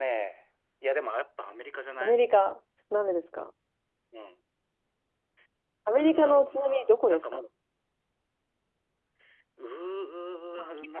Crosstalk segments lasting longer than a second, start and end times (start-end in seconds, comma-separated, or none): 5.9-7.5